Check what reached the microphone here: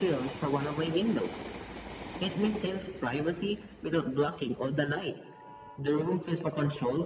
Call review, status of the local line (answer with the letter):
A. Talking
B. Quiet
B